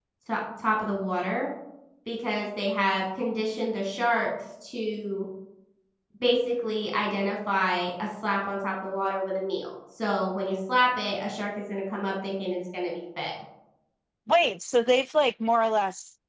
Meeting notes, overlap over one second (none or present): none